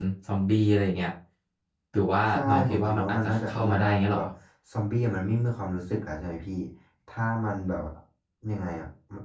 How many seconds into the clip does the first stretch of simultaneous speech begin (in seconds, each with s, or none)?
2.3 s